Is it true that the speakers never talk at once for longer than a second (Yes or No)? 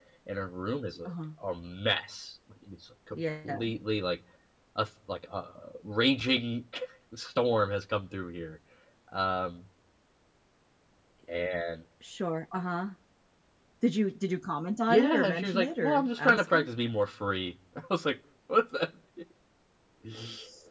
No